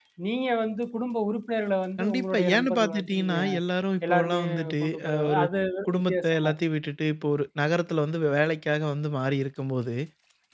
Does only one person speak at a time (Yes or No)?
No